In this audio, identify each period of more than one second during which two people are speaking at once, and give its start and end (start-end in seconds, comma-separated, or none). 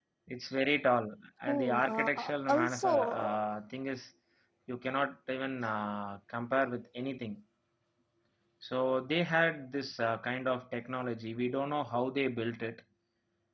1.5-3.4